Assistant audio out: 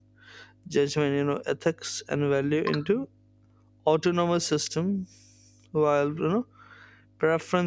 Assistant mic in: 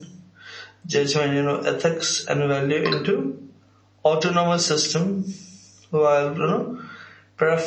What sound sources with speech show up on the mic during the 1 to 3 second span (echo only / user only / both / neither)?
echo only